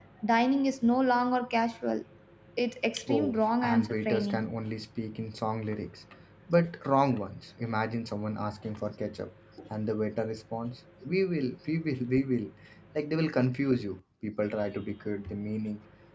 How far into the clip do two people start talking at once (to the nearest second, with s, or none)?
3 s